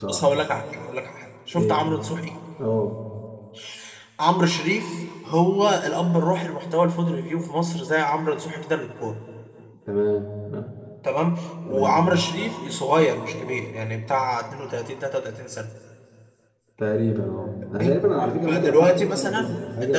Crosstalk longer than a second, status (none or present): present